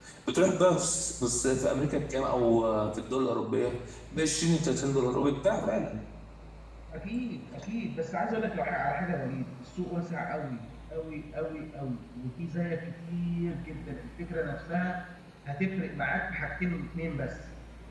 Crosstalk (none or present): none